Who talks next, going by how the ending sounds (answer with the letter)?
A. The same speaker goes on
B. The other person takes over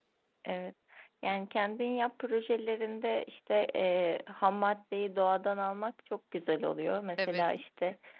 A